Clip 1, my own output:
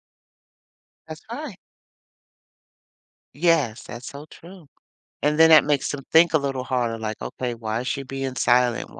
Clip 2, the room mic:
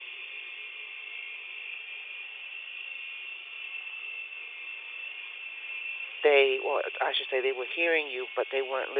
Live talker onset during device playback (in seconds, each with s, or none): 6.2 s